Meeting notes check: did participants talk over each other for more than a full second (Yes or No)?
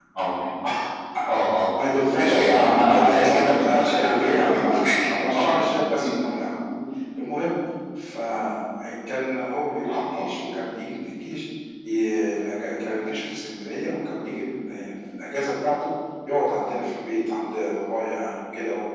Yes